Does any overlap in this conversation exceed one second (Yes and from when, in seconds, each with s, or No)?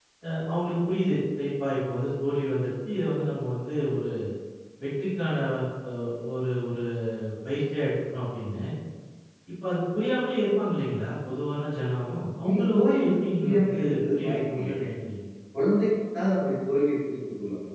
Yes, from 12.4 s